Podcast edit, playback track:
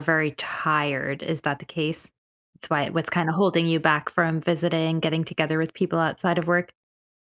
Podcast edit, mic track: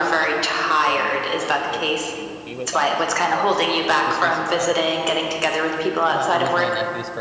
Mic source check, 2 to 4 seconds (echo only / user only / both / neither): both